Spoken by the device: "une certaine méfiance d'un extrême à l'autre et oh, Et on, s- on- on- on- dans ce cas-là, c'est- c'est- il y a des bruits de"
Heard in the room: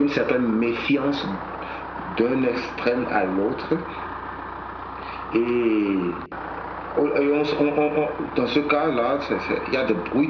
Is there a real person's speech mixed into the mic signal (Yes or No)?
No